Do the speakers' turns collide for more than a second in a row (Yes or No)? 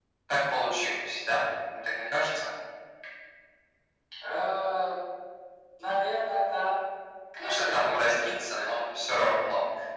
Yes